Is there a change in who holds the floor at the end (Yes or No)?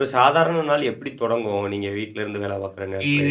Yes